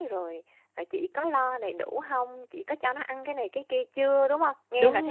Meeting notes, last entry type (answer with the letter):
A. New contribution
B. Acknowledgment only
A